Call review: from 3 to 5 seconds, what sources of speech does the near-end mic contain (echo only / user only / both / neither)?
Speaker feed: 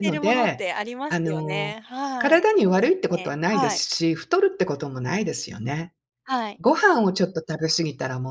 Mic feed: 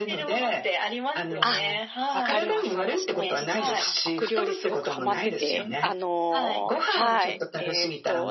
both